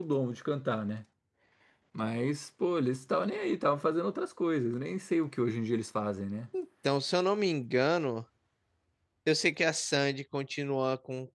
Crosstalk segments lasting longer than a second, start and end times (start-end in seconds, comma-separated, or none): none